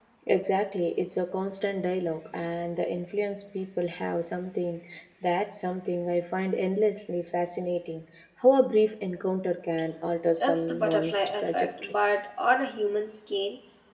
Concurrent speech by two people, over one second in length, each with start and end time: 10.4-11.9

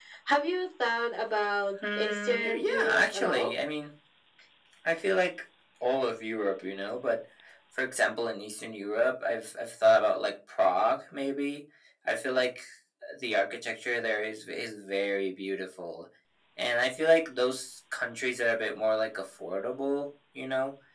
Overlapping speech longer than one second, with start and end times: 2.0-3.5

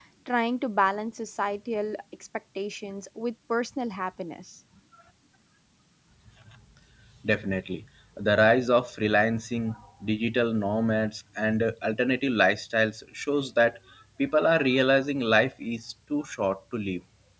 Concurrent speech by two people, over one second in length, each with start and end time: none

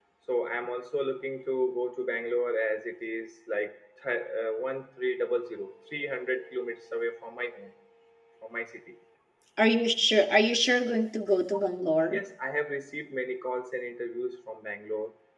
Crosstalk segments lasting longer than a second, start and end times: none

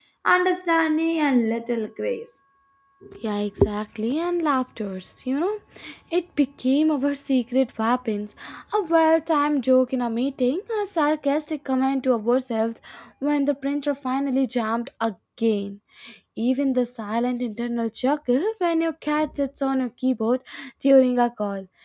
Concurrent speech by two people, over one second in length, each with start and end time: none

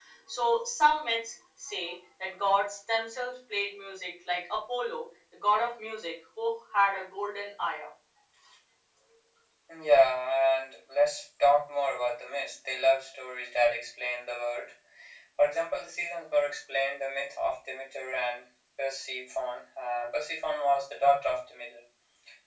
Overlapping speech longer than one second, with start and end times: none

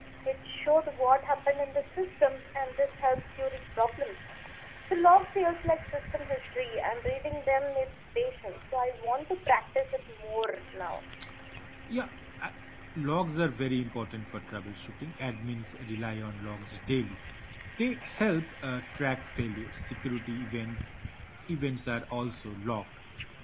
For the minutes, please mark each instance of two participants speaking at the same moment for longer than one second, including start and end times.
none

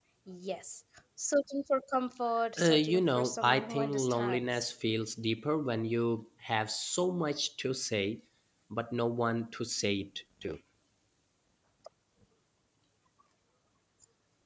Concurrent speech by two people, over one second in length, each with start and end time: 2.6-4.7

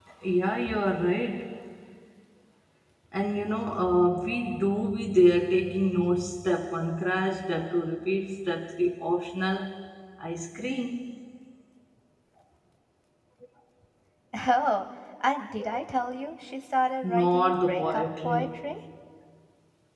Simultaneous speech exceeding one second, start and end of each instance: 17.0-18.6

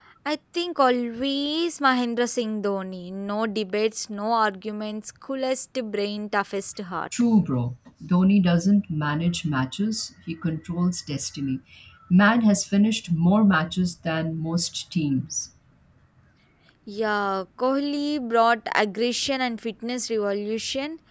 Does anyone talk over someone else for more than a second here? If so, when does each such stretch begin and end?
none

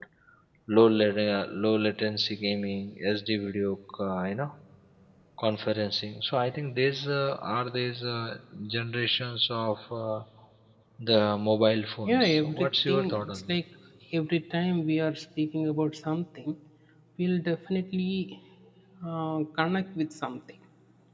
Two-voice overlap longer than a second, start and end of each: 12.1-13.6

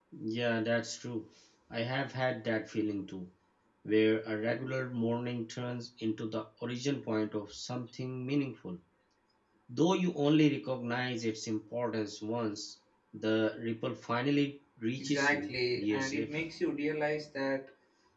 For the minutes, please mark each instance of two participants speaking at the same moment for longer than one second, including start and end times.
15.0-16.4

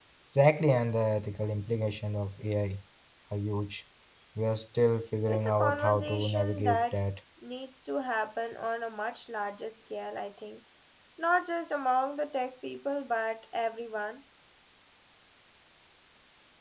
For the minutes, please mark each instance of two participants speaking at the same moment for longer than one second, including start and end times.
5.3-7.0

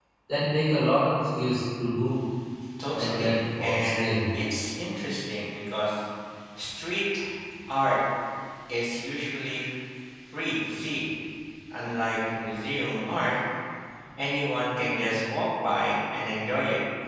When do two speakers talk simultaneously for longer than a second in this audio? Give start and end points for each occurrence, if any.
2.9-4.2

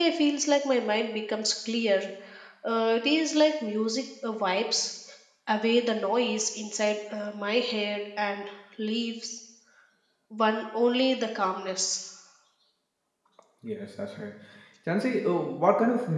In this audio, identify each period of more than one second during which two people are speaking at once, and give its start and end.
none

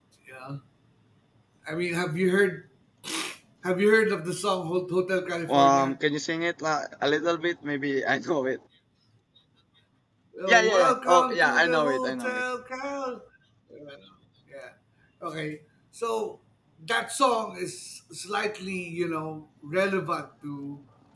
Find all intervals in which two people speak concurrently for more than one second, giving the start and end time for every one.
10.5-12.4

